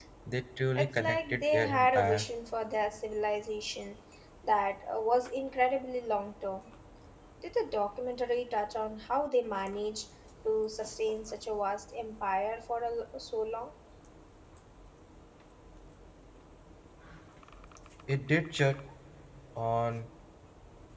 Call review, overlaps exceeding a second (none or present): present